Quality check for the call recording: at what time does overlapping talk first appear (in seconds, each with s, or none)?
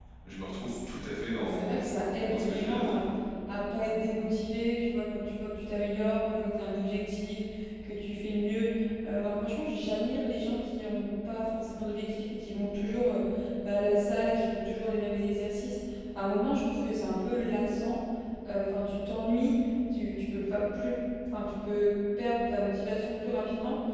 1.4 s